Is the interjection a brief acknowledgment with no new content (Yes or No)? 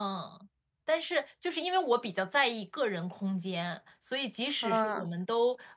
Yes